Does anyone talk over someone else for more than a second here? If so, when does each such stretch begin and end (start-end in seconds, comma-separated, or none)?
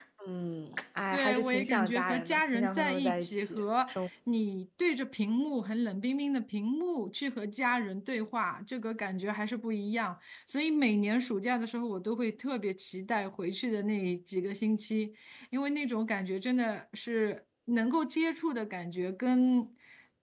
1.1-3.6